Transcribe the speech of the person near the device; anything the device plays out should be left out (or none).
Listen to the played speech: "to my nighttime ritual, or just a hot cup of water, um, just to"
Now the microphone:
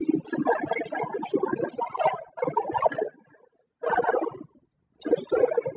none